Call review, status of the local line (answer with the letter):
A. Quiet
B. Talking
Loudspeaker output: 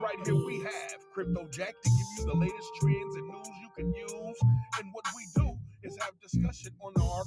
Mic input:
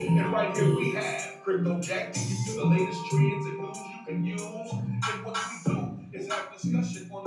A